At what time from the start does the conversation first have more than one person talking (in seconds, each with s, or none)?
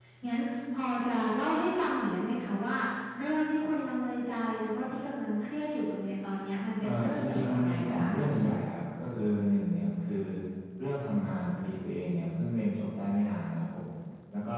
6.8 s